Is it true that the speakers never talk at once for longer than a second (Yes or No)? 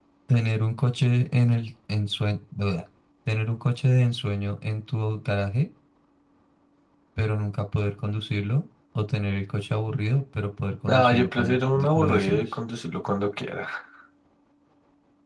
No